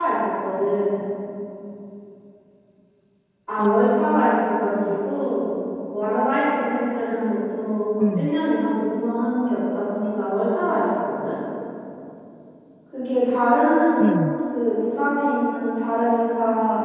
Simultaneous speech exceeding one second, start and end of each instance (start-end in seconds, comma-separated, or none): 3.6-4.9